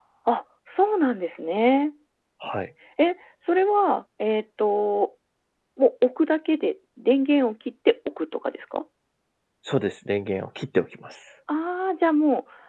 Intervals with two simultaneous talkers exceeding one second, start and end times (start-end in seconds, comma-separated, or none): none